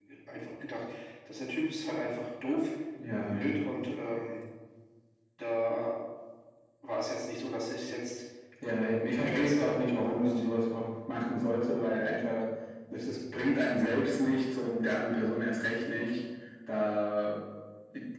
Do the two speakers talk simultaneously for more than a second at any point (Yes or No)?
Yes